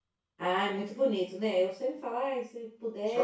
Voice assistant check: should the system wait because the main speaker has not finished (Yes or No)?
No